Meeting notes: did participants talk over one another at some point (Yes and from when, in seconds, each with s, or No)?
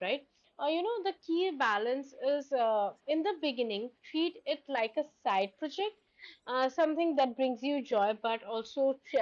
No